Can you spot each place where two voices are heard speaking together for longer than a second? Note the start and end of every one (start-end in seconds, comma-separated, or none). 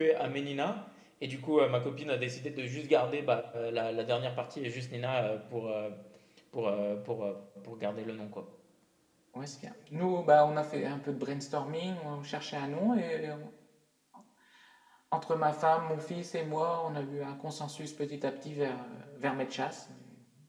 none